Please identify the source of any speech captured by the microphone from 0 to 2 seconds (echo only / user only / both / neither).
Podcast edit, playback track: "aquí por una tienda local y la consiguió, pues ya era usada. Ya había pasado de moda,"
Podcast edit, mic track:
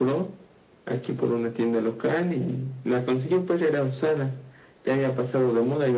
echo only